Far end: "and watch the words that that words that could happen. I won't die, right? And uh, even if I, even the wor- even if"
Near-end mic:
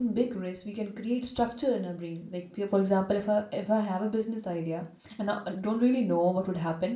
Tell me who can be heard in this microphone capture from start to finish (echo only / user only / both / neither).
user only